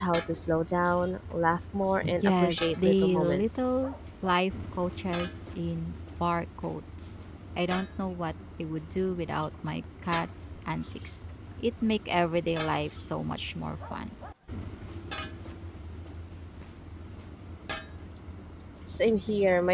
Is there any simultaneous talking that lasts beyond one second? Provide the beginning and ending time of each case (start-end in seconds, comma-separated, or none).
2.2-3.5